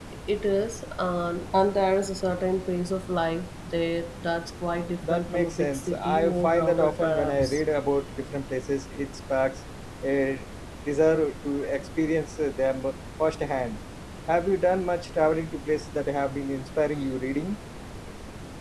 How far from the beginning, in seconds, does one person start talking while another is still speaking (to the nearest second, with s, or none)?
5 s